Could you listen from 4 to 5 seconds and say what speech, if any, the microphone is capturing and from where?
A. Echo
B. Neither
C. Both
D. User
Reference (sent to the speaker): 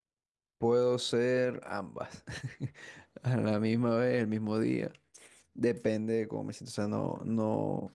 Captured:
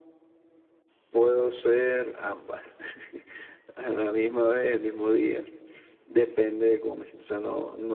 A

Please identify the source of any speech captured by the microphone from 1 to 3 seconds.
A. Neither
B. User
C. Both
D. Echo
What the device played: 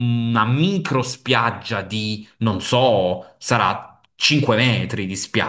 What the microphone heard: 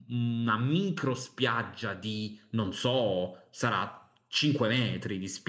D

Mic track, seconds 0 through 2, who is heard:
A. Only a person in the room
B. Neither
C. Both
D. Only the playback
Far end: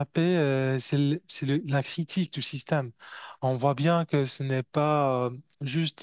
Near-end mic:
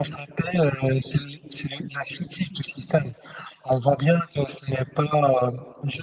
D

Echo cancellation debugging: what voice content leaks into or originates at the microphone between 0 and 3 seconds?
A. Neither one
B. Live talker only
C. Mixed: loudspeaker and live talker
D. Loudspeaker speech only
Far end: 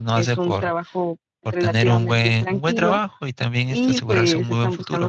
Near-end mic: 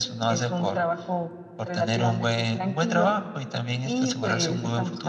D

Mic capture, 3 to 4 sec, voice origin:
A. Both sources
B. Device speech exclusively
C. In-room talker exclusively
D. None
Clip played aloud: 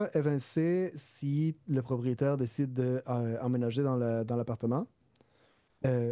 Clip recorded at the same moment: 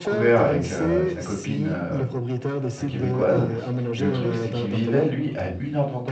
A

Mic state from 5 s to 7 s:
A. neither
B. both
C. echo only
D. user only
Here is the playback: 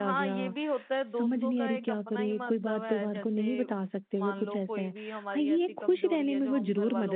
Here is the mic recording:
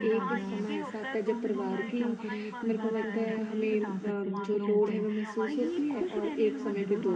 B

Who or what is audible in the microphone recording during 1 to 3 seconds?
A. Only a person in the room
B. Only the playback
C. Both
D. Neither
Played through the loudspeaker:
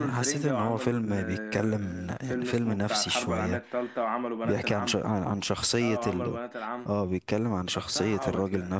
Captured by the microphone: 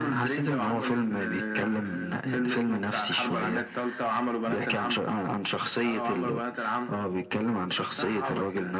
B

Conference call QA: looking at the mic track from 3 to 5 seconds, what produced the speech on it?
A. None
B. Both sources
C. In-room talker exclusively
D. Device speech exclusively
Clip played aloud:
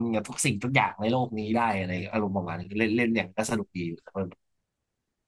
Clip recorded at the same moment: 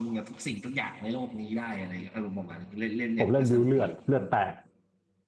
B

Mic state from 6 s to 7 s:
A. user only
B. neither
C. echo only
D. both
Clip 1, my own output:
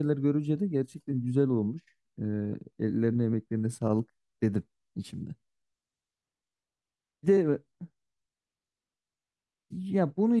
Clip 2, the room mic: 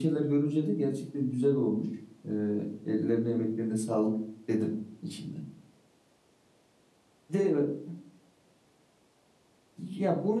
B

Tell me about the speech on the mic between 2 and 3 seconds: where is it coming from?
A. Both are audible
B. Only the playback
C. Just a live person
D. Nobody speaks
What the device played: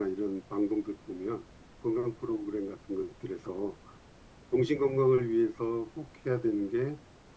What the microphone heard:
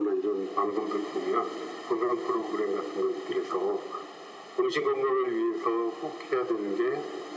B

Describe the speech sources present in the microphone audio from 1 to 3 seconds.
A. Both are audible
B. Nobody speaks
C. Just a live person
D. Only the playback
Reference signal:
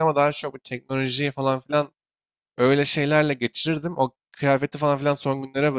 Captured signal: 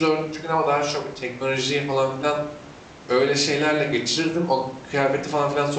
D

